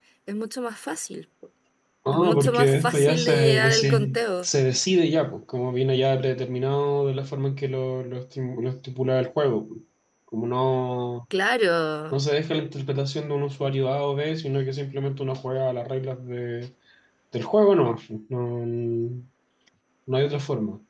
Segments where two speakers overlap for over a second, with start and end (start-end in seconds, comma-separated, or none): 2.1-4.5